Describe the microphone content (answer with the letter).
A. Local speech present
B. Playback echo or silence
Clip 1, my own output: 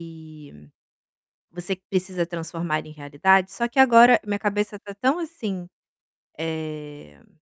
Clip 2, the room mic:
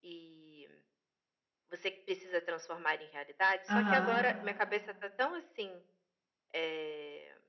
A